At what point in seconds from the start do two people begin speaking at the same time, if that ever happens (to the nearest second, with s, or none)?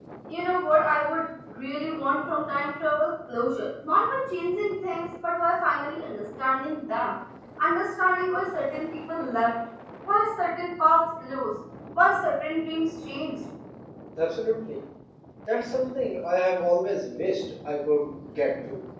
none